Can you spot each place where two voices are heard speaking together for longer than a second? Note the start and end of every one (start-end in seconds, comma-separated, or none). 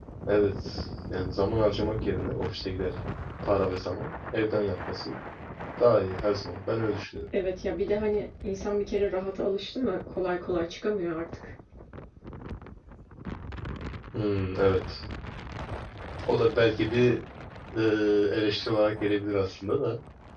none